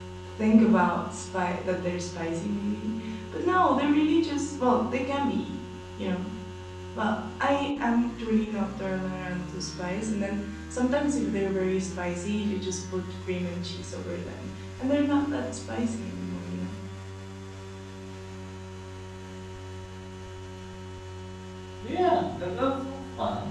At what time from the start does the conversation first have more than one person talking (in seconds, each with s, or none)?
none